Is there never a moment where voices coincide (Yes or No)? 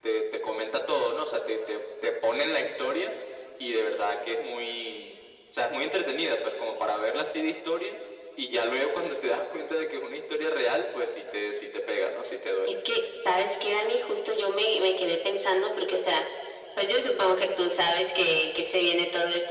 Yes